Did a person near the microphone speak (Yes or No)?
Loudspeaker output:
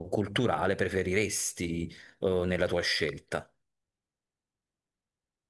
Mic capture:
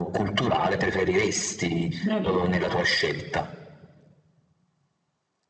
Yes